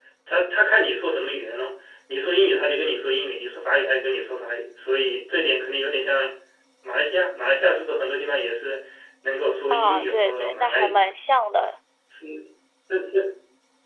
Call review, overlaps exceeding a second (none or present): present